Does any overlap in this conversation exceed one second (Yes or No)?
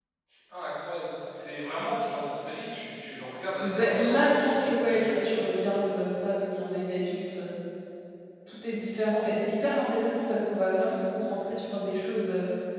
Yes